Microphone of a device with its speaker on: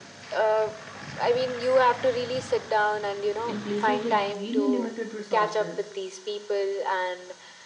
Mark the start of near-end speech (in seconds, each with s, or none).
3.4 s